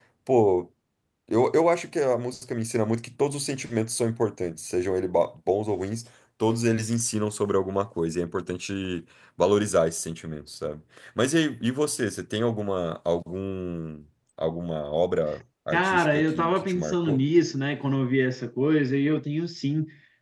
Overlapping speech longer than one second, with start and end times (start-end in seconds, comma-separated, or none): 15.7-17.2